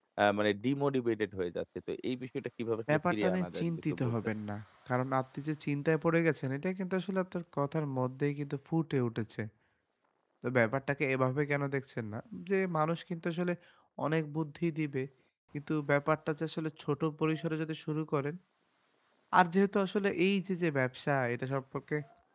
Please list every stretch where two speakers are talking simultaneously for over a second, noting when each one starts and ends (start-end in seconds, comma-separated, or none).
2.9-4.1